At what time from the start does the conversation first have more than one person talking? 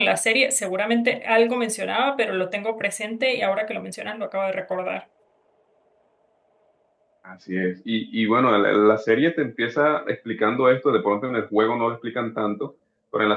none

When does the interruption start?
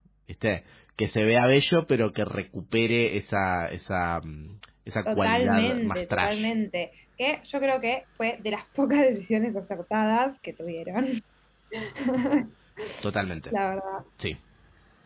5.0 s

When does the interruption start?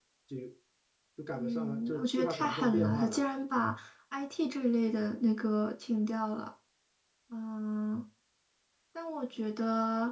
1.3 s

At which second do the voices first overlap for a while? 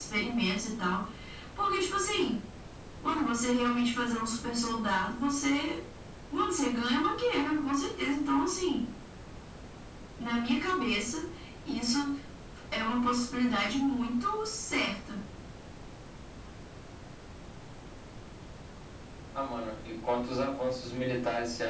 none

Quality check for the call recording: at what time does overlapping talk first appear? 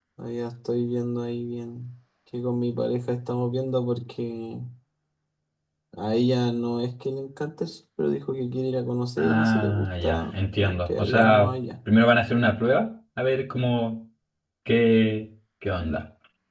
9.2 s

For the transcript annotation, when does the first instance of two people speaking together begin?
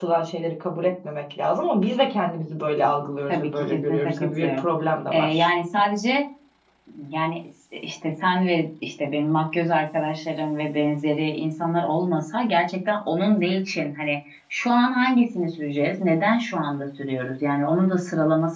3.3 s

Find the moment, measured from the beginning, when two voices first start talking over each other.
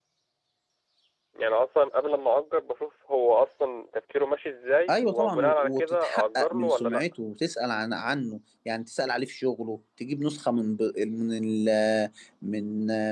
4.9 s

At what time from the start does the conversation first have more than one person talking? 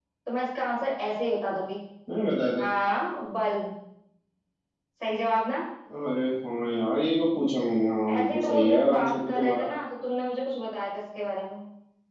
8.1 s

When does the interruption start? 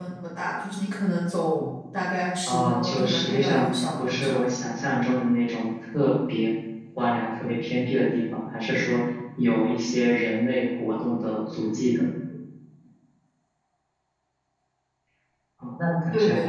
2.5 s

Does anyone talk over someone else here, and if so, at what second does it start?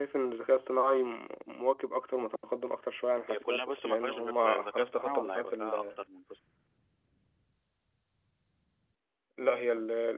3.3 s

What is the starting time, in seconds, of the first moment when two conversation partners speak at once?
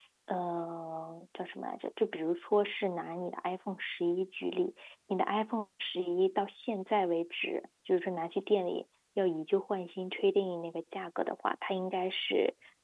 none

